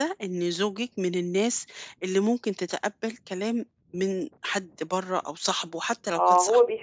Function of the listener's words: taking over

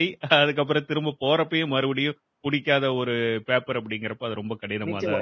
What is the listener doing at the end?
taking over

